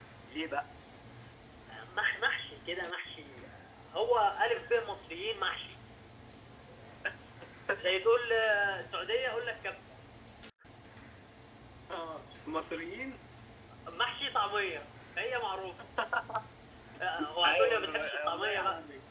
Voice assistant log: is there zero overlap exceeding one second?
No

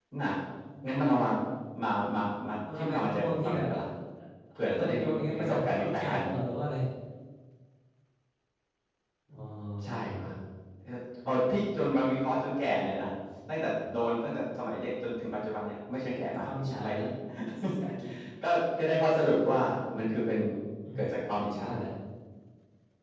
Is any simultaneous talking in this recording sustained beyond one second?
Yes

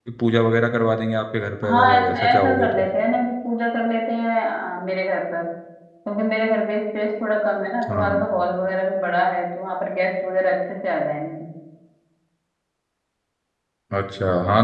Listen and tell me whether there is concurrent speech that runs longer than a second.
Yes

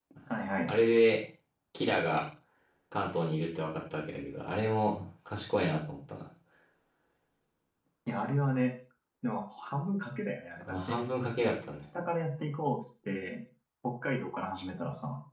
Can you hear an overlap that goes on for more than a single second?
No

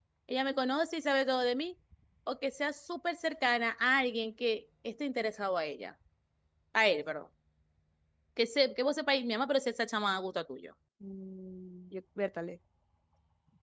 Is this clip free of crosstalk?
Yes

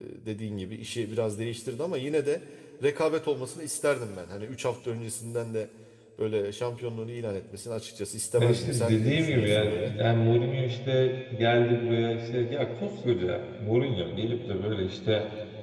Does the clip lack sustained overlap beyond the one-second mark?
No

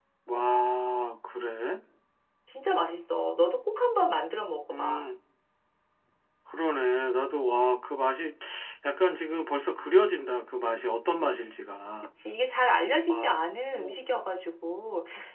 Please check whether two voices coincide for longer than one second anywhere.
No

